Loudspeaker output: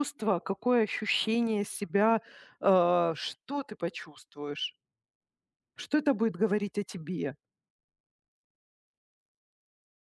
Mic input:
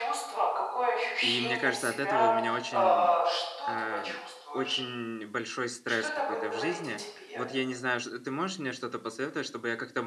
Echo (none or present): present